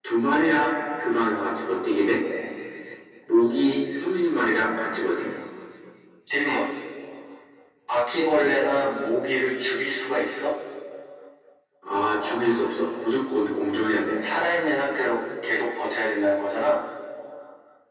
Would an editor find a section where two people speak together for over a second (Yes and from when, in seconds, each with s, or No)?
No